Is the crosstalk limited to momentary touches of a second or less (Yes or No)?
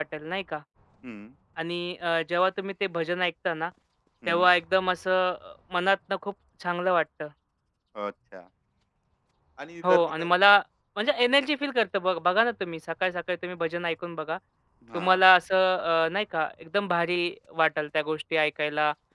Yes